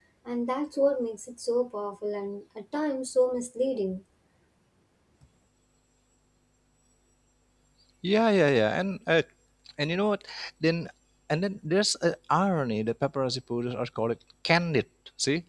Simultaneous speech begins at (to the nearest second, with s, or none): none